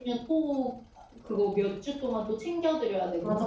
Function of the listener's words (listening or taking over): taking over